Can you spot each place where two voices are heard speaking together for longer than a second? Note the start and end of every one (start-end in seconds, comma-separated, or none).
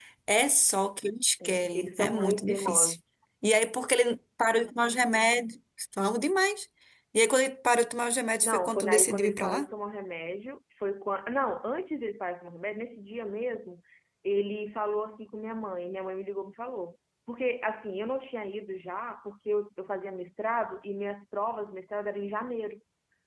1.7-3.0, 8.4-9.7